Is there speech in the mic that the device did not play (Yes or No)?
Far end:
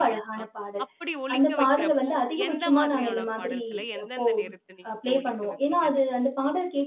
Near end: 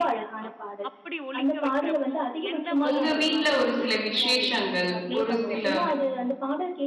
Yes